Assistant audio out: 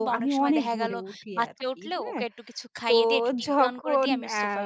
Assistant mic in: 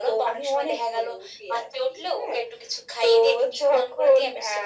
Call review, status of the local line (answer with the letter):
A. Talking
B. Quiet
B